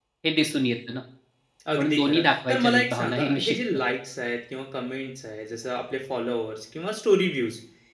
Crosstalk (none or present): present